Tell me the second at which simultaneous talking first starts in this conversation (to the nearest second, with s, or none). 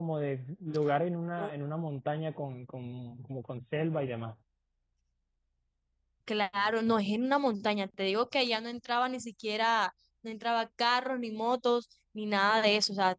none